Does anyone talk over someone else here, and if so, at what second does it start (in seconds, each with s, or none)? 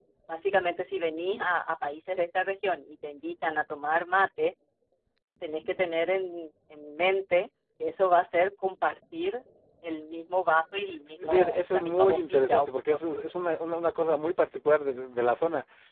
11.2 s